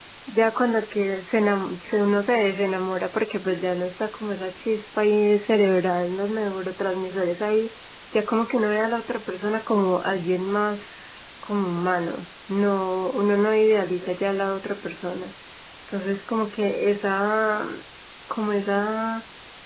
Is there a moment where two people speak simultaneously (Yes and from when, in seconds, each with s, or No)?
No